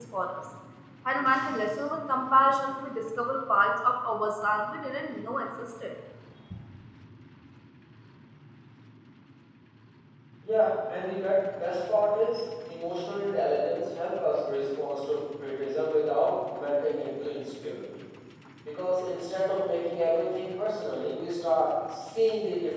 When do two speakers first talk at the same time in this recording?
none

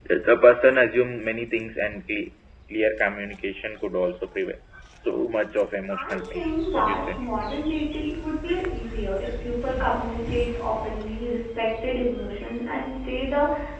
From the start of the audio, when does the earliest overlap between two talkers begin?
5.9 s

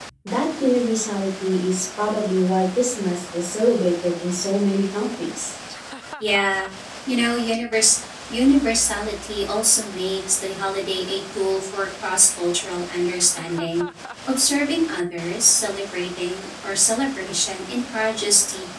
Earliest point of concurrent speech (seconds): none

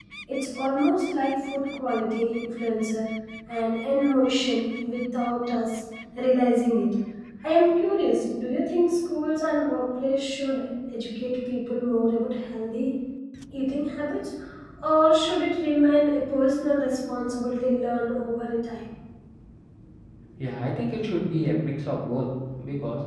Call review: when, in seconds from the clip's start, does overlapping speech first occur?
none

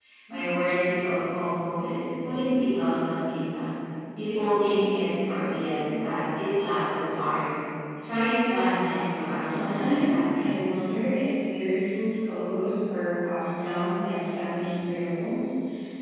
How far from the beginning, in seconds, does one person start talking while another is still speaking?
9.4 s

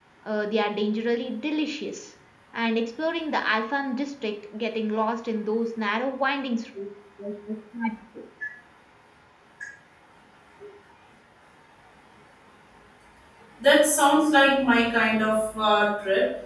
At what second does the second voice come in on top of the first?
none

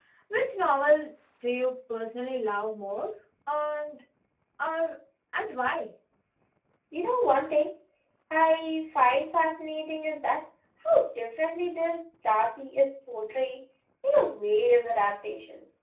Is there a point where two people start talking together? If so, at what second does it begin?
none

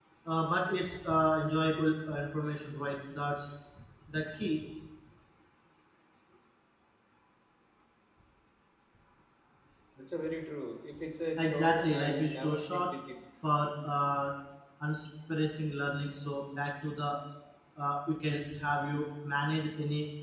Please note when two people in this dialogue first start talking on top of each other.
11.4 s

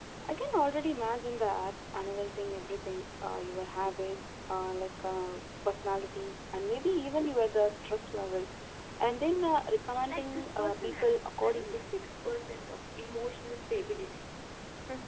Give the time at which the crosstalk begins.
10.1 s

